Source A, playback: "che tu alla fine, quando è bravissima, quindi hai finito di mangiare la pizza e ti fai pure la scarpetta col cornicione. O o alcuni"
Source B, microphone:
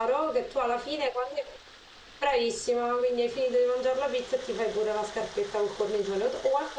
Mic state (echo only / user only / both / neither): echo only